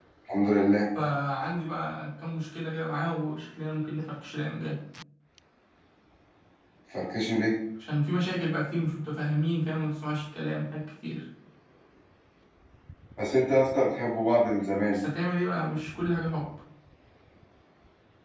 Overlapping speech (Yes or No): No